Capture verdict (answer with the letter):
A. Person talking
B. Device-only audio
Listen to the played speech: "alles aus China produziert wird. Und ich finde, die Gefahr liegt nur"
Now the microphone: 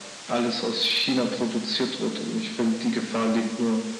B